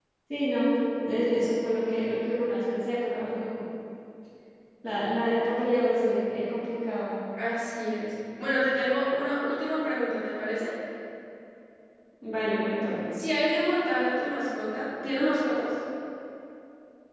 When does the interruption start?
none

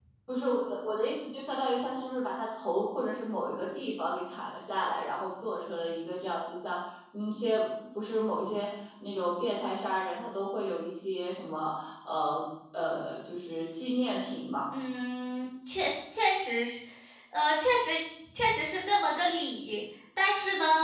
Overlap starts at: none

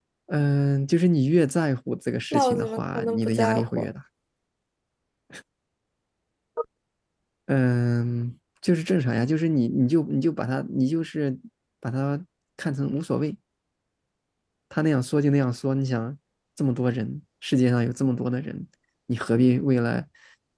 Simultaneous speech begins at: 2.3 s

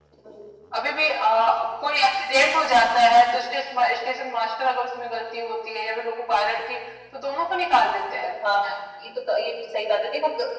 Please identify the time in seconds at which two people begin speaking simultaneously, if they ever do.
none

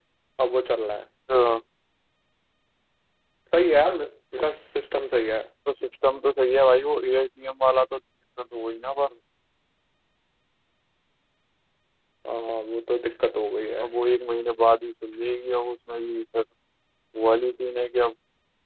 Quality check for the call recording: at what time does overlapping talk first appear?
none

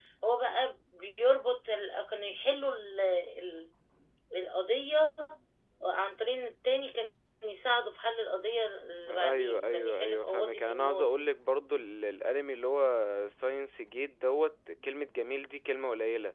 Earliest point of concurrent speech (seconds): 9.1 s

